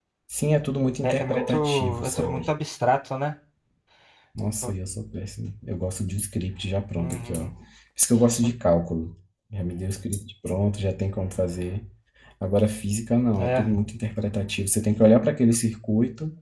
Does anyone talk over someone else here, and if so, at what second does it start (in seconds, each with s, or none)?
1.0 s